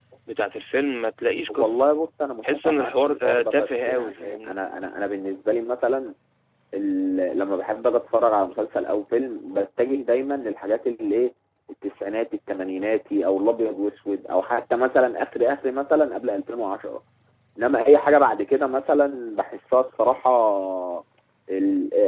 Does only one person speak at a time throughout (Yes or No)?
No